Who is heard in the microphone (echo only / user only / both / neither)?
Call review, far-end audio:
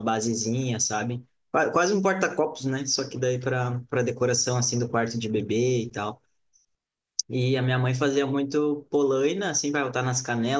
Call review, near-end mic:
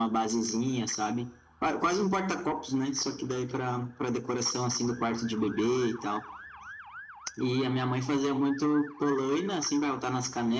echo only